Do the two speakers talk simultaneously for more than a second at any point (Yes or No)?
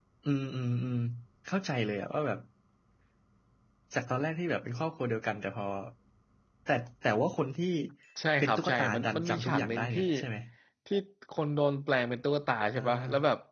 Yes